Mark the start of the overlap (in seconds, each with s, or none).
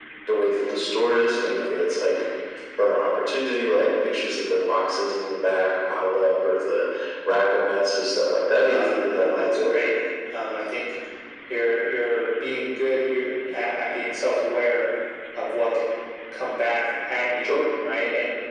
8.7 s